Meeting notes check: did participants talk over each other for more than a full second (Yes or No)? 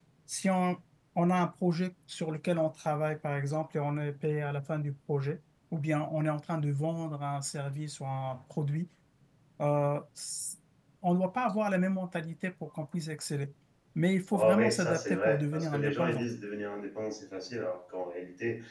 Yes